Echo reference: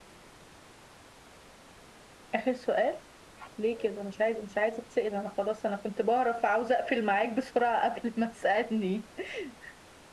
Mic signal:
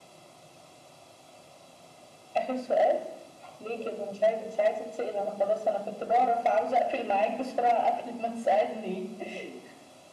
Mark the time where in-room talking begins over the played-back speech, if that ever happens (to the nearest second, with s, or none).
none